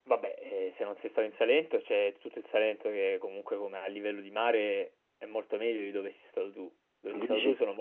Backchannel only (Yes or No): Yes